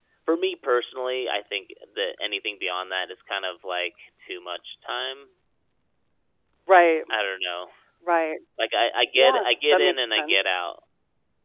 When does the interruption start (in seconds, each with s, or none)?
9.1 s